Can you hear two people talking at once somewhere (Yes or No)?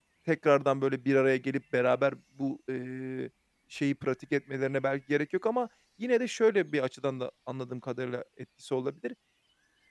No